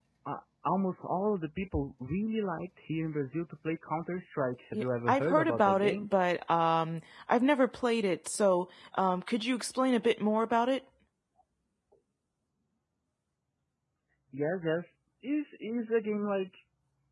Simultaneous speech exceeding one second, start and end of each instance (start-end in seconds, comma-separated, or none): 4.7-6.0